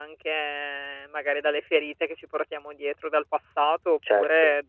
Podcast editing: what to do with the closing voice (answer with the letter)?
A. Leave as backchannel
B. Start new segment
A